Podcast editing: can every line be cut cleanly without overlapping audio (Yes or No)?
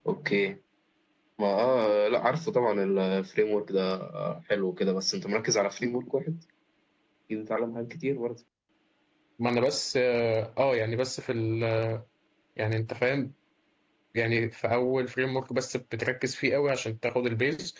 Yes